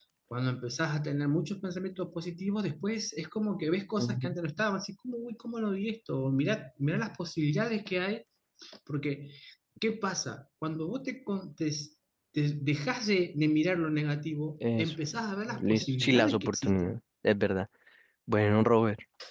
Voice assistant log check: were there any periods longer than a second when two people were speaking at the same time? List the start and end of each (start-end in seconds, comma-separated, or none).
15.6-17.0